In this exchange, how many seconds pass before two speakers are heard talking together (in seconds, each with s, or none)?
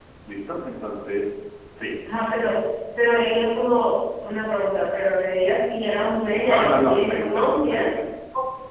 6.5 s